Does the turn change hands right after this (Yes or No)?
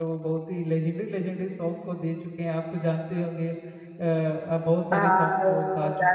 Yes